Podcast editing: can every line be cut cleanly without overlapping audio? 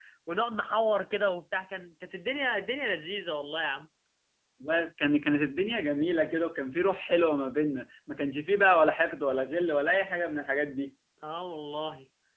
Yes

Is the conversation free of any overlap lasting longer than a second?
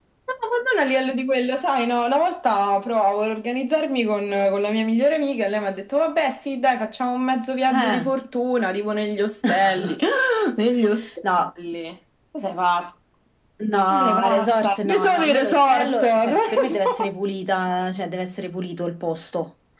No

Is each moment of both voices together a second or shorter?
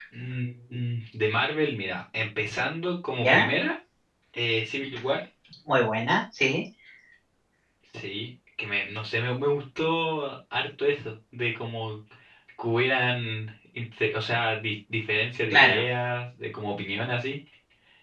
Yes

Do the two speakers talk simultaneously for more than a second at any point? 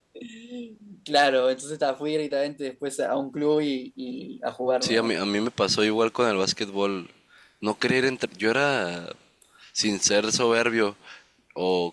No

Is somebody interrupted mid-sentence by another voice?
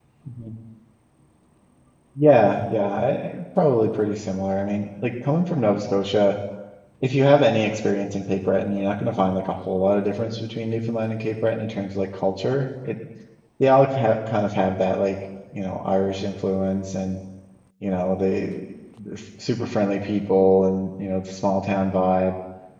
No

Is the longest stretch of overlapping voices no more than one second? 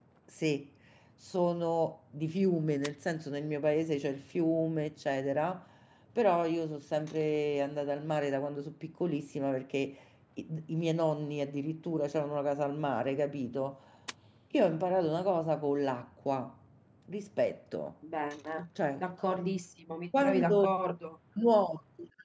Yes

